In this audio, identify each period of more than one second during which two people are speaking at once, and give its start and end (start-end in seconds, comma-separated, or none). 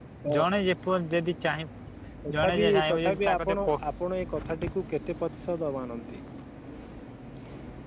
2.4-3.7